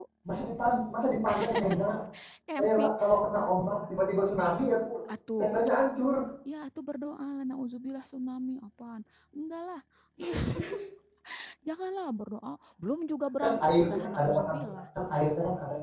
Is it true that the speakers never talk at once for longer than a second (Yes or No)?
No